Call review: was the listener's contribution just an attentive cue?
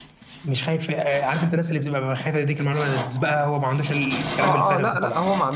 No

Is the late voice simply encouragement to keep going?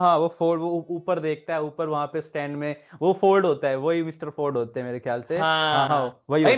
No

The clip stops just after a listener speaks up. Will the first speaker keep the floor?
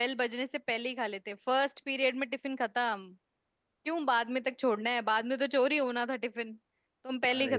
No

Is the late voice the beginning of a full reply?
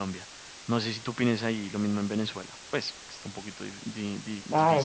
Yes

